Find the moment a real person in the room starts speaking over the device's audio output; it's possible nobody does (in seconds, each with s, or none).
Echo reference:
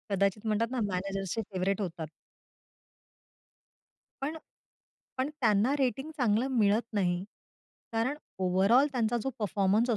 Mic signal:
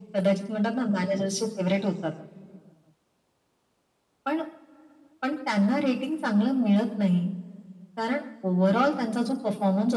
none